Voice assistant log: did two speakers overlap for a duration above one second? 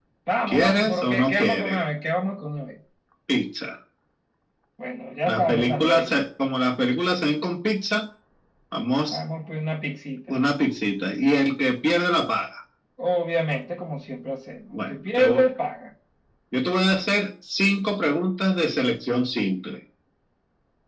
Yes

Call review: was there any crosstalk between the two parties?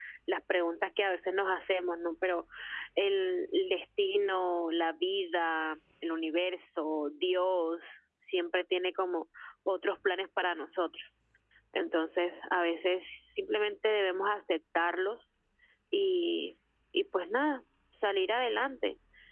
No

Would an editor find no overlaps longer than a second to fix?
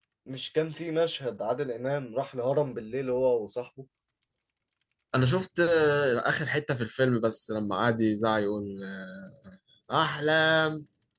Yes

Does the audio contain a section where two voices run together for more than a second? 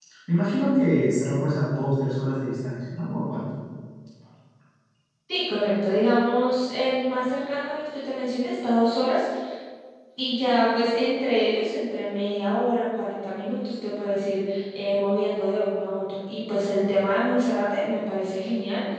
No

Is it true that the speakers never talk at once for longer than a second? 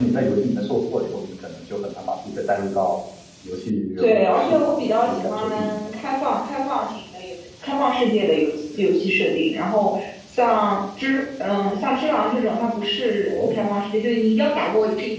No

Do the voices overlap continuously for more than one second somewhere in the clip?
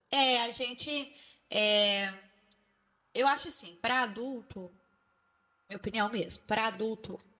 No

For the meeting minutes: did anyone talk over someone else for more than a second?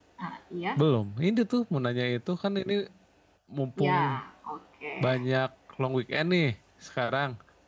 No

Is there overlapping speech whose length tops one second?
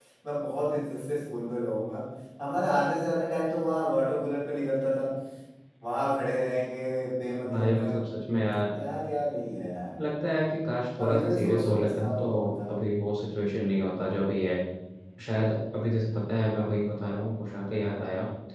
Yes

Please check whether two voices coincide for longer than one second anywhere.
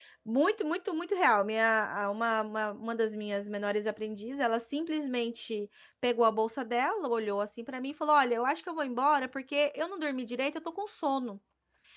No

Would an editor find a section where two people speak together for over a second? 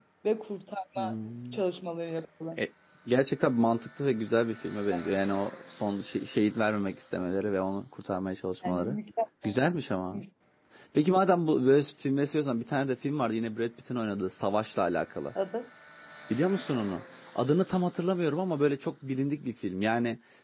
No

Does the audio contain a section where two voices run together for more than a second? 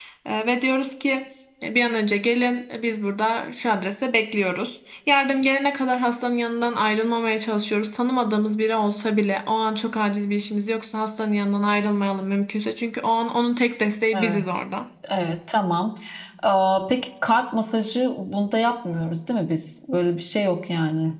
No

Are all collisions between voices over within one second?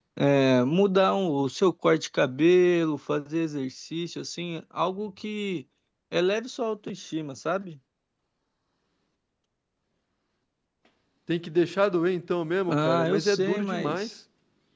No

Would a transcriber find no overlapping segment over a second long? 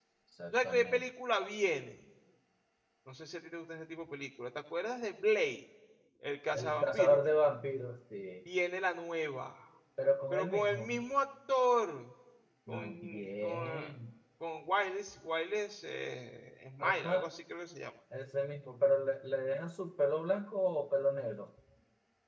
No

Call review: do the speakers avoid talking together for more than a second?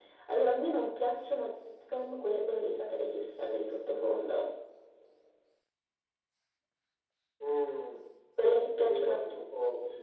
Yes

